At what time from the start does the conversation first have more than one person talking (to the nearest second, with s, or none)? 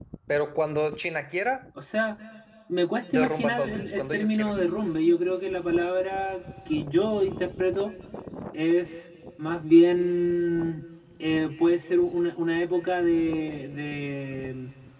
3 s